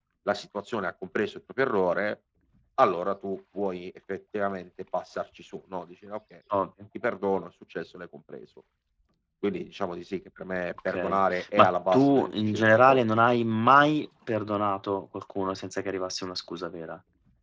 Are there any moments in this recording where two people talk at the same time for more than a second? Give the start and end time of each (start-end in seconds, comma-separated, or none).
10.9-13.0